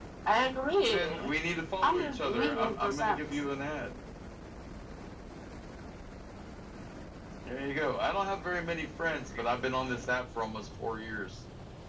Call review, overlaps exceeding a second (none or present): present